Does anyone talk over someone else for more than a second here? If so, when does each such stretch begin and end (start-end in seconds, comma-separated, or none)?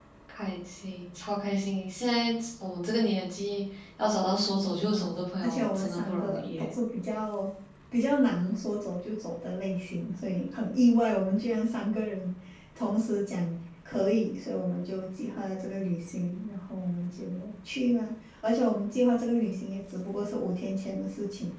5.4-6.7